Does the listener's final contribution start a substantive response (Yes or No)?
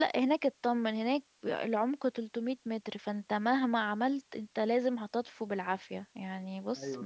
No